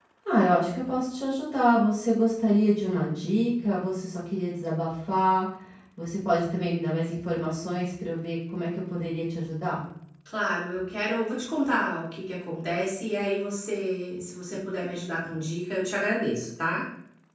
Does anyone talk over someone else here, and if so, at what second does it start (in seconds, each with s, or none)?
none